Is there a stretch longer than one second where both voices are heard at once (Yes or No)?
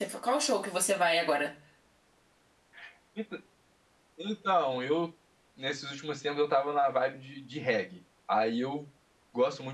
No